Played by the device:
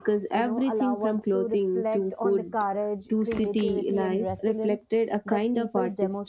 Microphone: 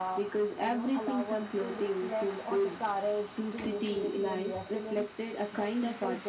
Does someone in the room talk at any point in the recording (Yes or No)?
No